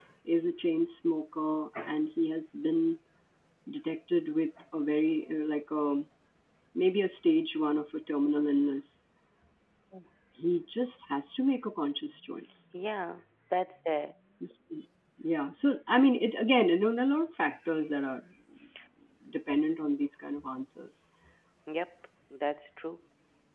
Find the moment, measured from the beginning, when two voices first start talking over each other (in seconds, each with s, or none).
none